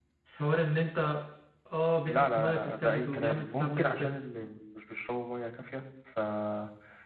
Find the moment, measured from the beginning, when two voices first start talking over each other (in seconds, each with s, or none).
2.1 s